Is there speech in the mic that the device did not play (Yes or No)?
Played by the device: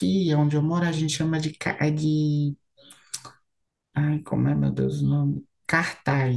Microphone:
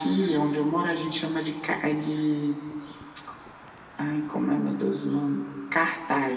No